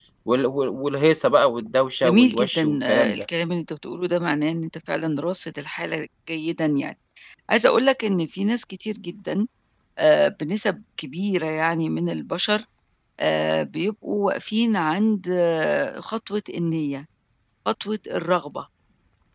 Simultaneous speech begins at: 2.0 s

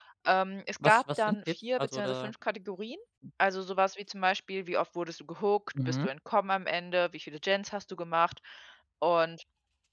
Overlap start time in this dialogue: 0.8 s

